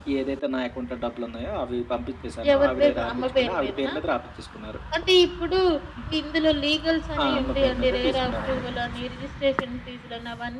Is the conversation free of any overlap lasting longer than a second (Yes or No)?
No